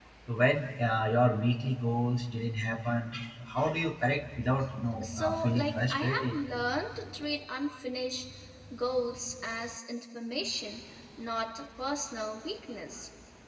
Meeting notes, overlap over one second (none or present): present